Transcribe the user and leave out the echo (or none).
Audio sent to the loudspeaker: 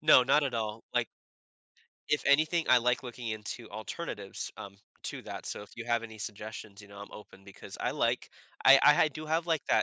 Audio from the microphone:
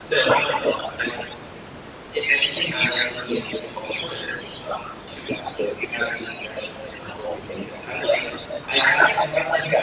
none